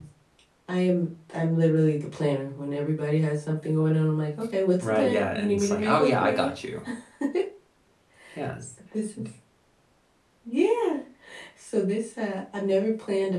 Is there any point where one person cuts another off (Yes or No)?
Yes